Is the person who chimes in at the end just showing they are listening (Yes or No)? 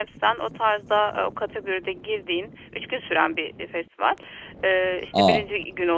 Yes